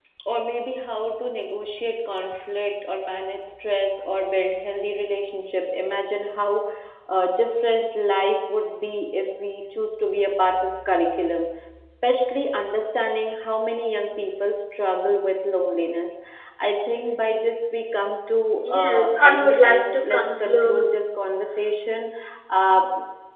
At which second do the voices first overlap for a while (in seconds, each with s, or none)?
18.6 s